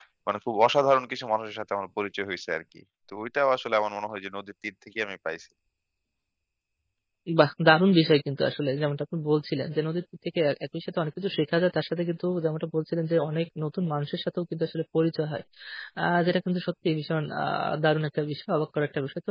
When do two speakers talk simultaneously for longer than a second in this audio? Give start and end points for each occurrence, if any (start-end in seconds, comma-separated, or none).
none